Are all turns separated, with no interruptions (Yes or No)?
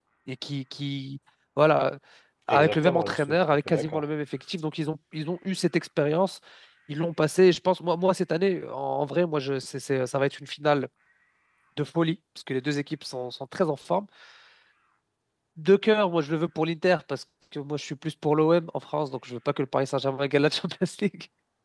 No